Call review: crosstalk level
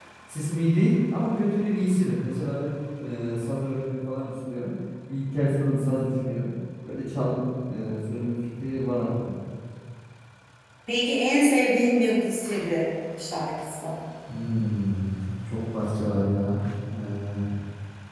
none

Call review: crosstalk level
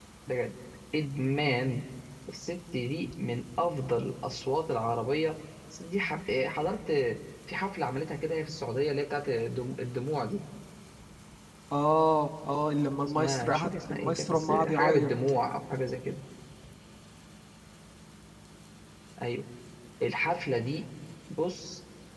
present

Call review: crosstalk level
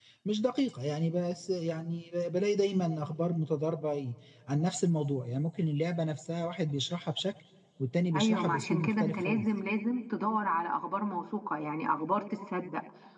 present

